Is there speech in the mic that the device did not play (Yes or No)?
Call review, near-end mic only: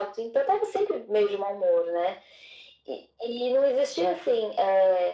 No